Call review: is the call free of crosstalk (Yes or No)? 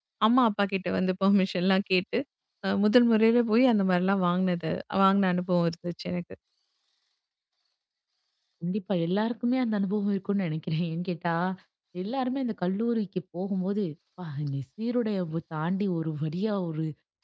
Yes